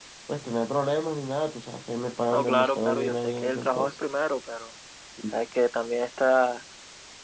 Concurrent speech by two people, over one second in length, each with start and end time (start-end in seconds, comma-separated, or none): 2.3-3.9